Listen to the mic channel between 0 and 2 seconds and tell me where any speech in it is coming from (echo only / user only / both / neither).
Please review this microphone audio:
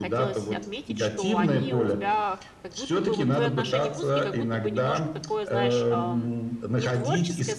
both